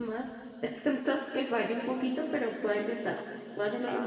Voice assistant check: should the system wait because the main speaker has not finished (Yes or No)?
No